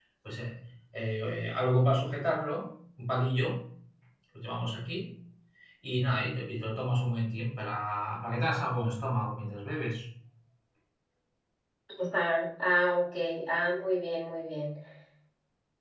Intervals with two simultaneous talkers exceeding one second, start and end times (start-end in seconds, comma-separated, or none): none